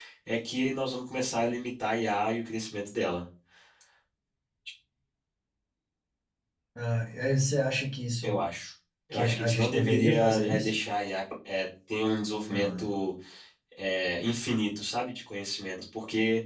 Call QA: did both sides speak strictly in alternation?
No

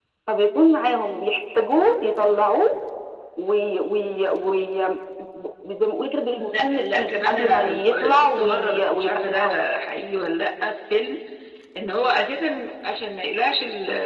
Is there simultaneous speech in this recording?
Yes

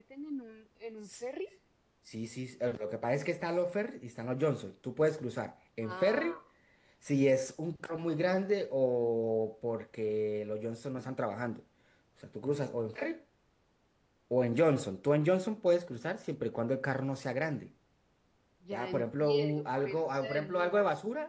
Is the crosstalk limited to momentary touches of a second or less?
No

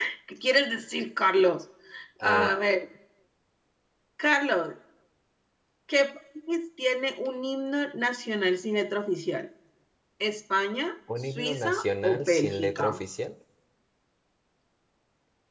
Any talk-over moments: Yes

